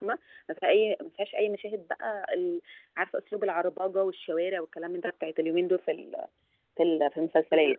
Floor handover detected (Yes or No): Yes